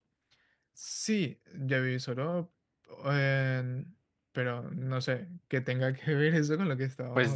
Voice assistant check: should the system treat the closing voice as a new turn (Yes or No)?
Yes